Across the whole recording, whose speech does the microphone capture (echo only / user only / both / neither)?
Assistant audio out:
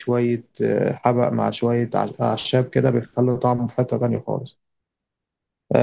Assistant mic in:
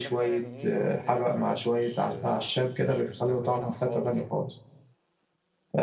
both